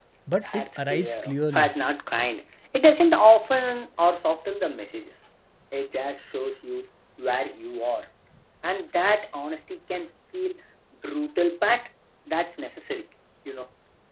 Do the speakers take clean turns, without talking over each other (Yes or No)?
No